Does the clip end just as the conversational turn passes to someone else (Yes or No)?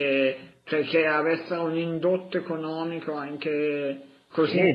Yes